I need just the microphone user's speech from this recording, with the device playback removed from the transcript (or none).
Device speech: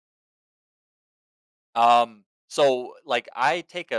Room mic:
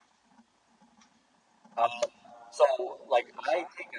none